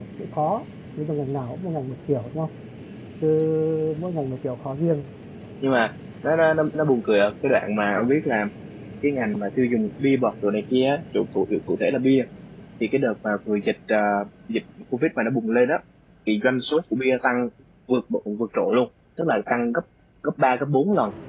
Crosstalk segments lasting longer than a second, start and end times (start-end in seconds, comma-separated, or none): none